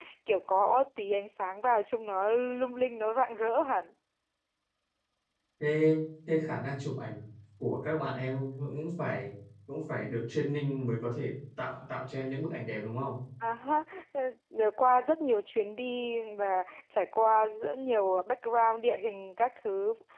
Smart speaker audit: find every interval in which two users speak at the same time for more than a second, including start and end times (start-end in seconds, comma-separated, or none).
none